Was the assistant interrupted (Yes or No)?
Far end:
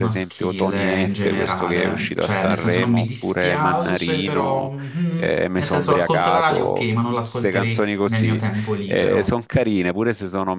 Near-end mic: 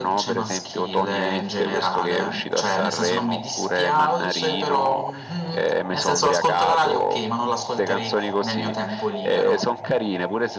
No